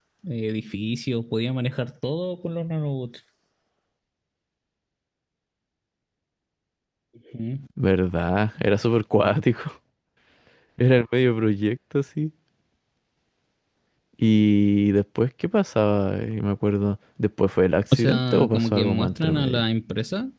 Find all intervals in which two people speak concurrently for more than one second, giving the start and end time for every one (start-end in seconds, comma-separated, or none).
17.9-19.6